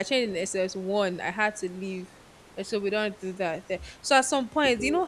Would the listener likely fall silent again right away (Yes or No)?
Yes